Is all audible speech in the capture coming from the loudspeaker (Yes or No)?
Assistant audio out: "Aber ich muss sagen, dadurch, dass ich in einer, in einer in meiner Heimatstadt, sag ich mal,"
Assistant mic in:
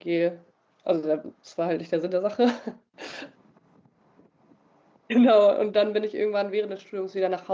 No